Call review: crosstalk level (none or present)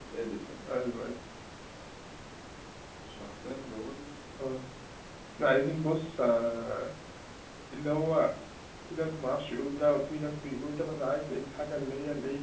none